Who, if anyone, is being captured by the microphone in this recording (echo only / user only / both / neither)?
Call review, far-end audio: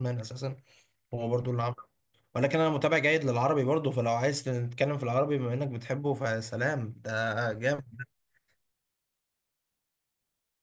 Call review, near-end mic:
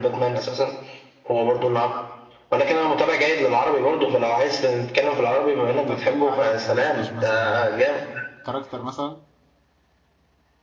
both